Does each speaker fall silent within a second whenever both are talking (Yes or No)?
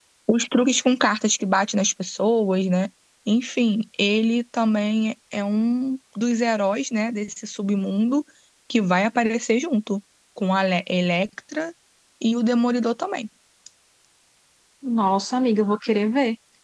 Yes